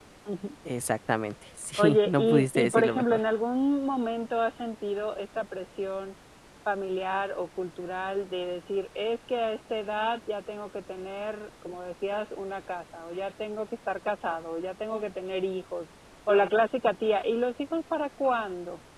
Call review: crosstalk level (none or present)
present